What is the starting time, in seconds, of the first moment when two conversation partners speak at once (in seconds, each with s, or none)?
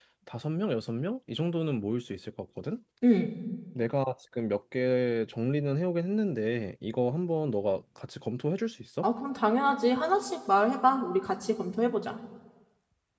none